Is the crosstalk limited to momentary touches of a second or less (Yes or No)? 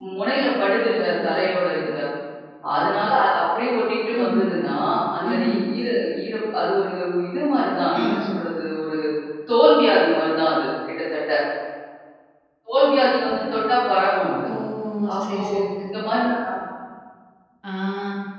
Yes